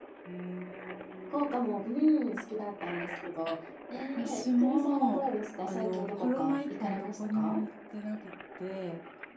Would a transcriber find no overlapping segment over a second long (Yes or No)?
No